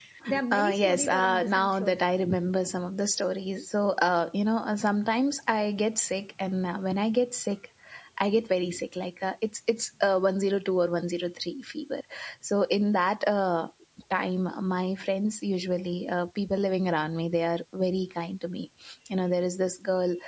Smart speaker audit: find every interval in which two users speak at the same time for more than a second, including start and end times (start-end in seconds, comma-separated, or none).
0.5-1.9